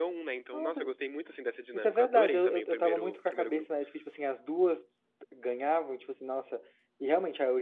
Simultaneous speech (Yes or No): Yes